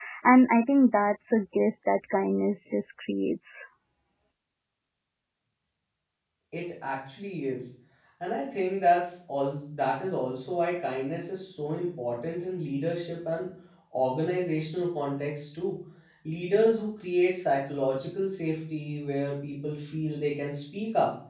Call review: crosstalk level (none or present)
none